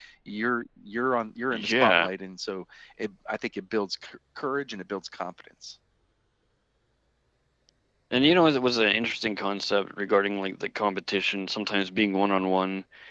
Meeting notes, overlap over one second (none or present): none